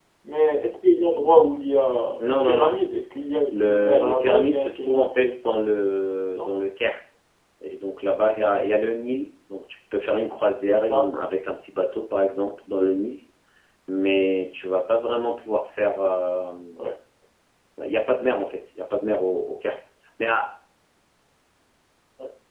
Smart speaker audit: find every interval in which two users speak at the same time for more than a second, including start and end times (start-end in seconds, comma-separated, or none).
3.5-5.6